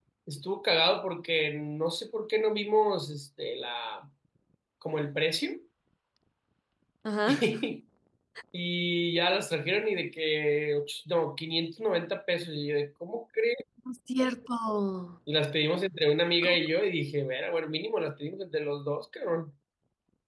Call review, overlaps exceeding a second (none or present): none